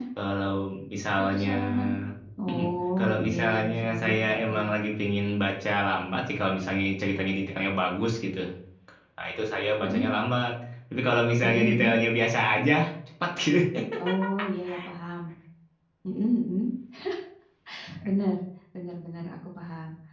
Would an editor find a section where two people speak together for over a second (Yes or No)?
Yes